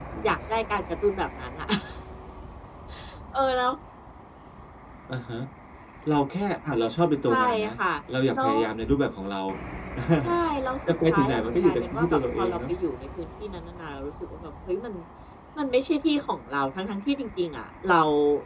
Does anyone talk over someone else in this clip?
Yes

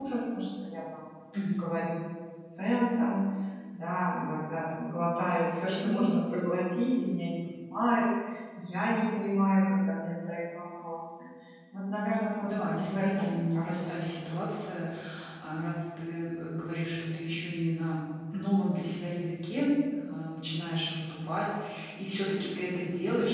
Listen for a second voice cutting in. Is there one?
Yes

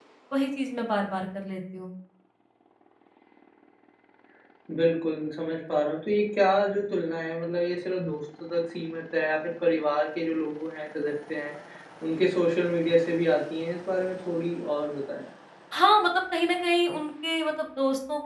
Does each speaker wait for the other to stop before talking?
Yes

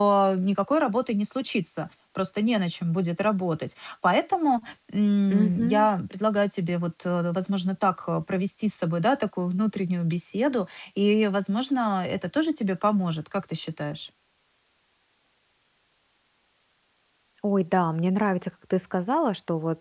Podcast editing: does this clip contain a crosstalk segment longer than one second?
No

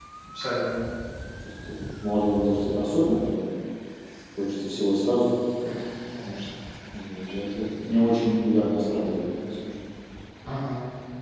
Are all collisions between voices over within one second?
Yes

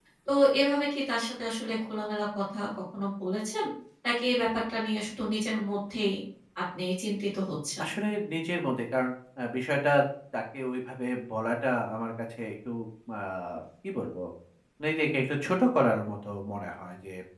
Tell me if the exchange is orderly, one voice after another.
Yes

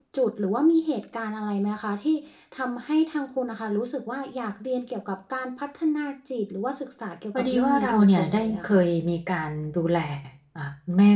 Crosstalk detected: Yes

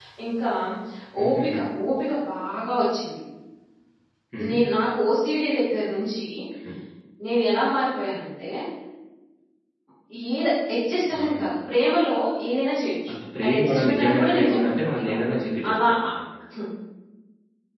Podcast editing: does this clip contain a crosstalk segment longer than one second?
Yes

